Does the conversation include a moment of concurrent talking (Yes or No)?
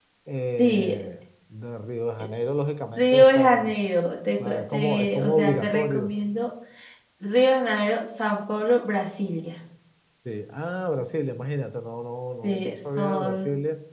Yes